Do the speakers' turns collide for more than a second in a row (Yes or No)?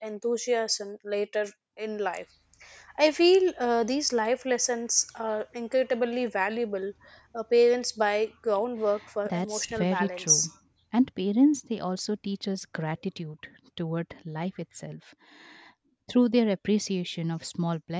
Yes